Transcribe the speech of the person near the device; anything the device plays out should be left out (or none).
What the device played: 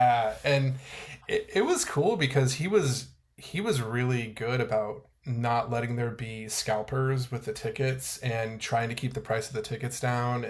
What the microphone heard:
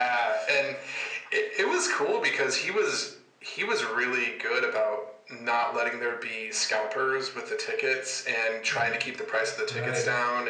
Mm, right